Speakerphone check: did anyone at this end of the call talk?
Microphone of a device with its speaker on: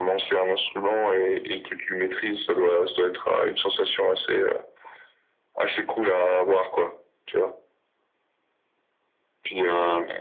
No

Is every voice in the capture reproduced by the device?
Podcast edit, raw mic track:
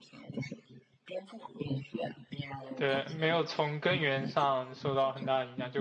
No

